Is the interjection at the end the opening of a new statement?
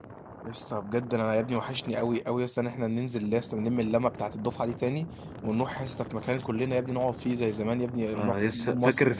Yes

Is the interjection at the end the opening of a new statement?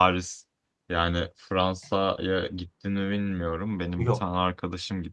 No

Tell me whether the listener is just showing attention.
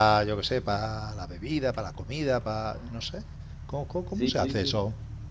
No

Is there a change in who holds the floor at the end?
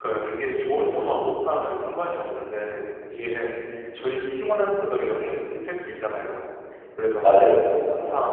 No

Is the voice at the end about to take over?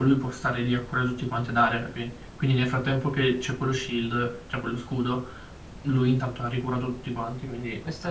Yes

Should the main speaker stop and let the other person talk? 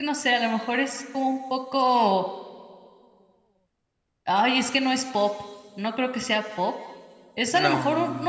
No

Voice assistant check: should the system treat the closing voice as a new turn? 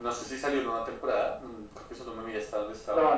Yes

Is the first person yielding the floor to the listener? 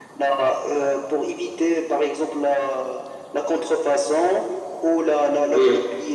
No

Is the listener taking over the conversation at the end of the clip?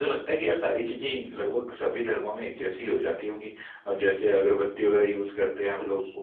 Yes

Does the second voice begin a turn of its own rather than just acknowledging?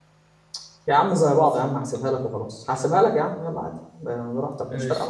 Yes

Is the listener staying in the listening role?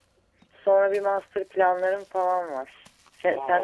Yes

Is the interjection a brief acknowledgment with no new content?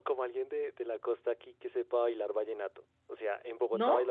Yes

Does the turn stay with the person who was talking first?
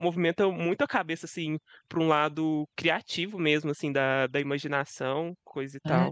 No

